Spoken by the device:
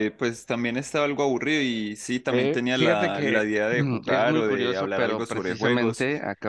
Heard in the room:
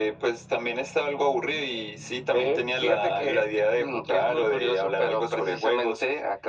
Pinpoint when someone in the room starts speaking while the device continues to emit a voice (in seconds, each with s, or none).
none